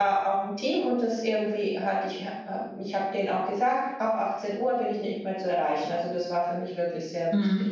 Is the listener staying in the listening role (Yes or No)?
No